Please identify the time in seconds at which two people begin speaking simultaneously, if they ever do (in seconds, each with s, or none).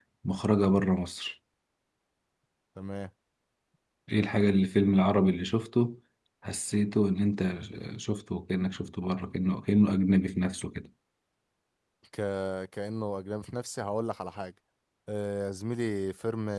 none